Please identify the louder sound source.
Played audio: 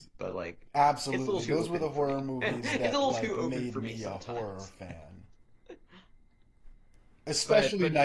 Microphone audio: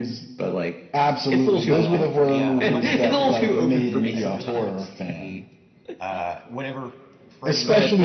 echo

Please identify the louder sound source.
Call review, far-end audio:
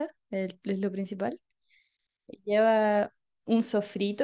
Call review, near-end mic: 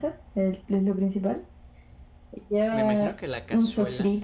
echo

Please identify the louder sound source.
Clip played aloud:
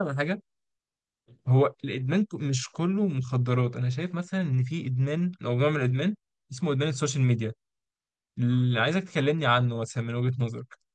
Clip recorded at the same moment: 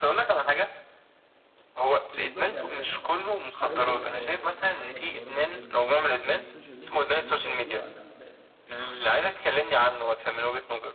echo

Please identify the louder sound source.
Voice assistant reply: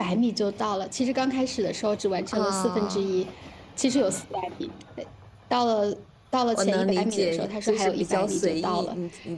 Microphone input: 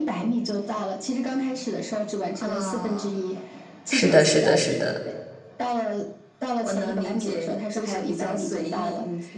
user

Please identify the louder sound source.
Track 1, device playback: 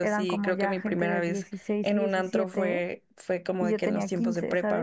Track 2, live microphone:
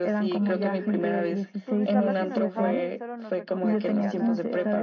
echo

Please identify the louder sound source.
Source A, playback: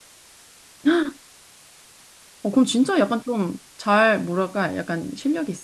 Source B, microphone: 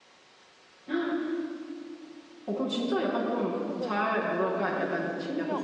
echo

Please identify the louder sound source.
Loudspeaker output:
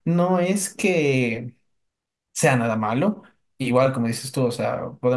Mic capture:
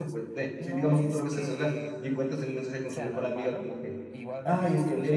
user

